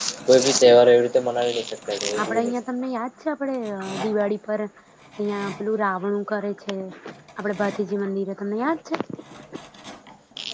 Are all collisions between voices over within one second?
Yes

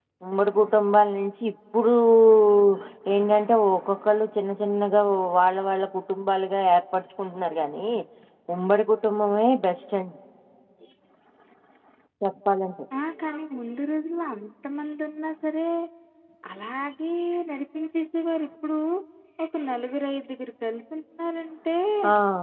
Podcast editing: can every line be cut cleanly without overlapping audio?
Yes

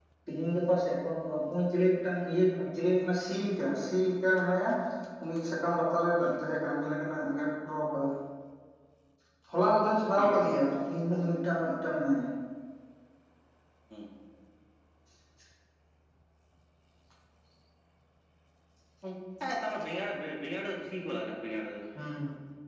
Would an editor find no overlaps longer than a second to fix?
Yes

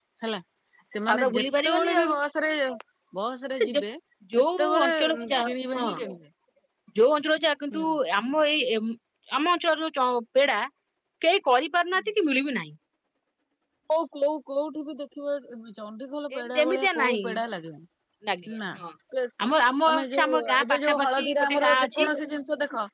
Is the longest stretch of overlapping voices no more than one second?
No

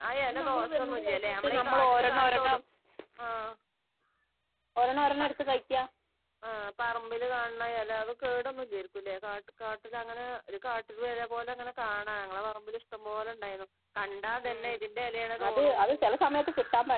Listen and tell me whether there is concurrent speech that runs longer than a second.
Yes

